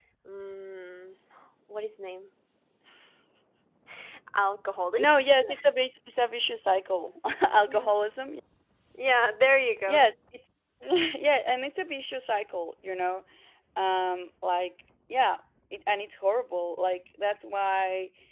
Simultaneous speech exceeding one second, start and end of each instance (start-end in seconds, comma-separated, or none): none